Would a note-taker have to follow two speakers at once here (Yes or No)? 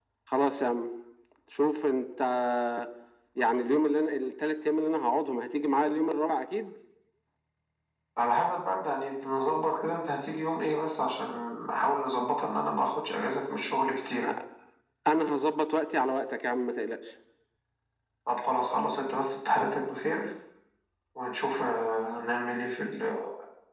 No